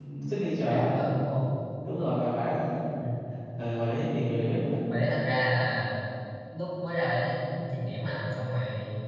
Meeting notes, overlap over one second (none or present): none